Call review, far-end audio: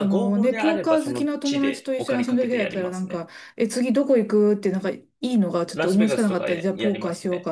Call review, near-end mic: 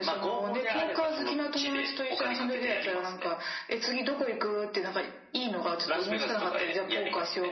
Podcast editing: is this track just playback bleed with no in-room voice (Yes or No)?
Yes